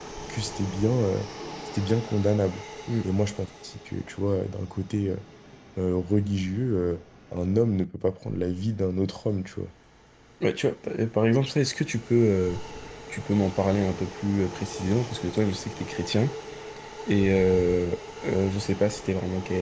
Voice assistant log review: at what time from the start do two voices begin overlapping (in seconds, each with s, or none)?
none